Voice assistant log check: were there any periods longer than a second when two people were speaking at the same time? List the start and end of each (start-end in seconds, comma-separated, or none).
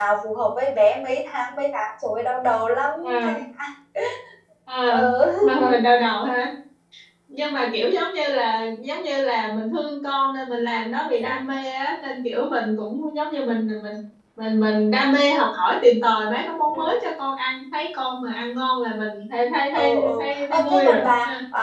19.7-21.0